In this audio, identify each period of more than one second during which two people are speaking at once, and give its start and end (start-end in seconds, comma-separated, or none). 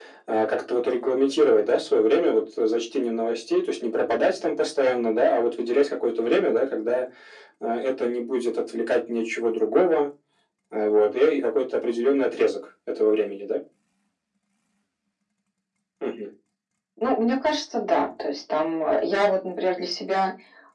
none